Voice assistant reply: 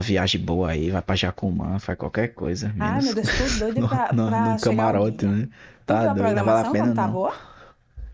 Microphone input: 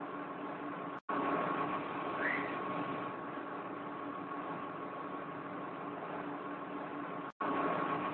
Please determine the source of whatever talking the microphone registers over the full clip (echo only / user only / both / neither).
neither